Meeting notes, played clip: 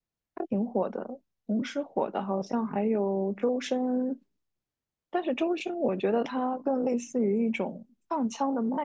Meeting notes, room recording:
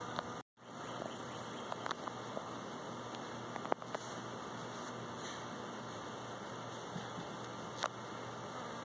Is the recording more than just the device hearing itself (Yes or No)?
No